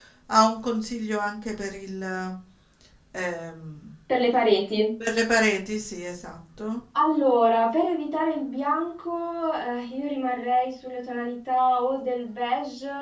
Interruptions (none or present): none